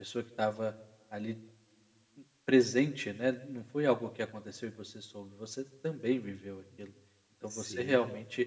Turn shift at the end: No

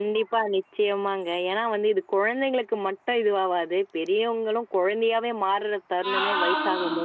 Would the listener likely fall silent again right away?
No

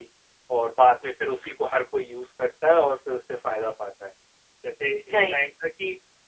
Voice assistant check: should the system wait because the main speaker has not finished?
Yes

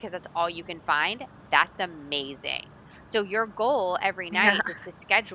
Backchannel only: Yes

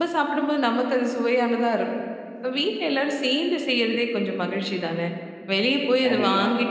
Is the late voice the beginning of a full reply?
No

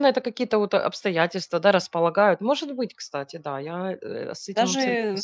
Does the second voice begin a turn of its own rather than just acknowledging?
Yes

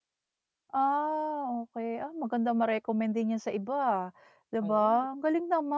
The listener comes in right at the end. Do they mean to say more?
No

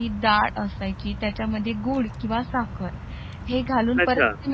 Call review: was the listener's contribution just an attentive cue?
Yes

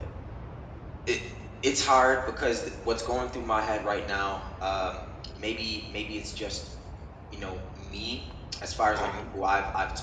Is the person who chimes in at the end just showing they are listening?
Yes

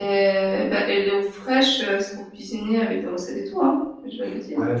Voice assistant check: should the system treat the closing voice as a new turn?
Yes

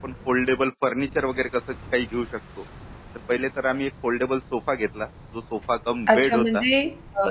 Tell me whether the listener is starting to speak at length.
Yes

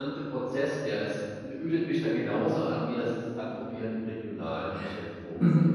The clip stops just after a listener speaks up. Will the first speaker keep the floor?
No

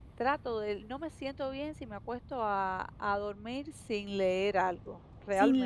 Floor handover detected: Yes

